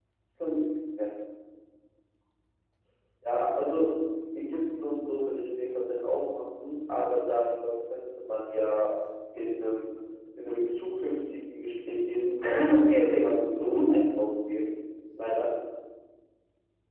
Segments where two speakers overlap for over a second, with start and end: 12.4-14.0

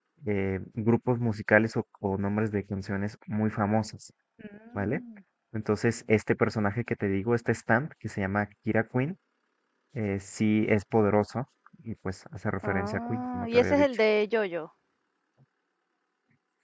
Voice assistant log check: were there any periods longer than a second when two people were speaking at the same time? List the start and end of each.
12.6-13.8

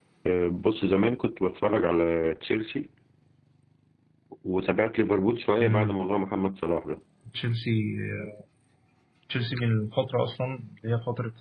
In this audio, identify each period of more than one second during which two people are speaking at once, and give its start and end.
none

